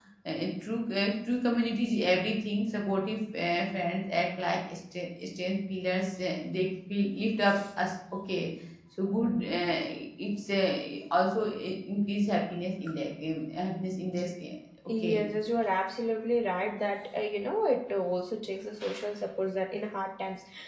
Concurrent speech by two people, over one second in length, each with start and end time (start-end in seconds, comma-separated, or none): none